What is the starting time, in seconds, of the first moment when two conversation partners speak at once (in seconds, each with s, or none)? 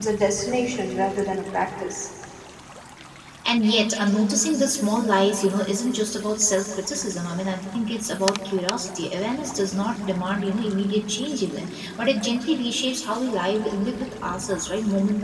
none